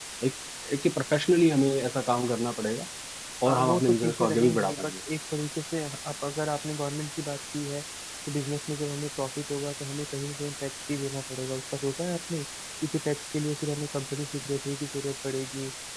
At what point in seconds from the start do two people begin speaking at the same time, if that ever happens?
3 s

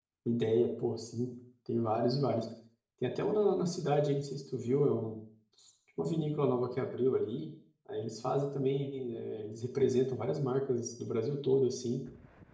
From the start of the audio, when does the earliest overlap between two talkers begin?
none

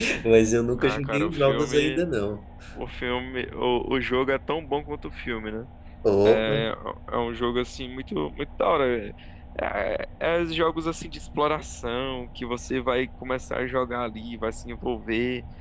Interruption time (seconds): 1 s

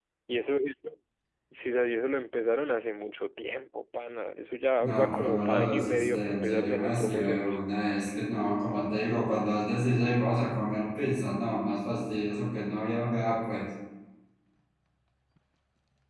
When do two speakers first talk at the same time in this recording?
5 s

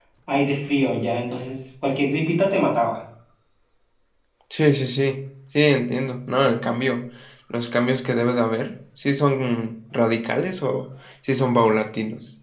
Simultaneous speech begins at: none

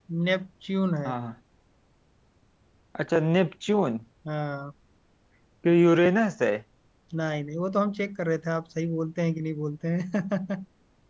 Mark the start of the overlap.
none

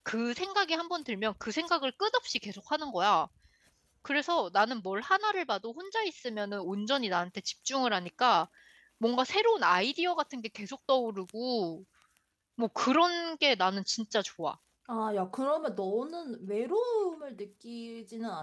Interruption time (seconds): none

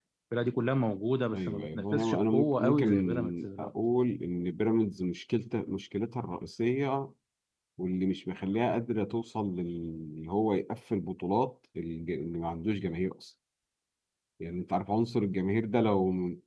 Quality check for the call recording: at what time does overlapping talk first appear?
1 s

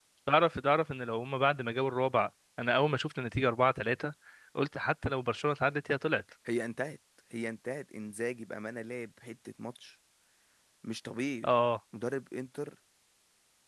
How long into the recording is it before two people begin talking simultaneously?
none

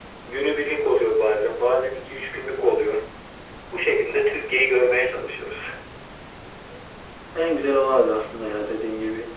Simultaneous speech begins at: none

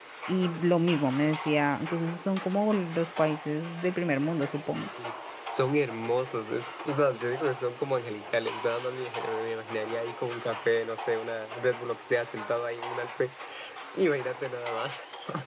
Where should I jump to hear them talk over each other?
none

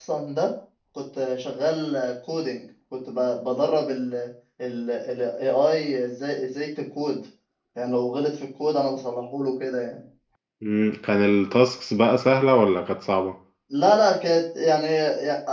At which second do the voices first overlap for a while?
none

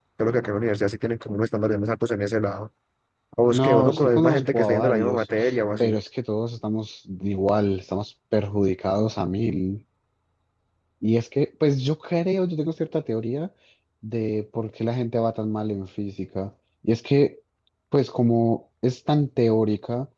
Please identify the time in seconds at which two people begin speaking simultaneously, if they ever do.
4 s

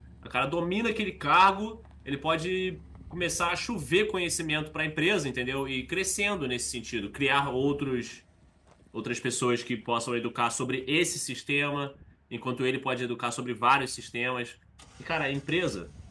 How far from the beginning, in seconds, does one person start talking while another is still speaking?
none

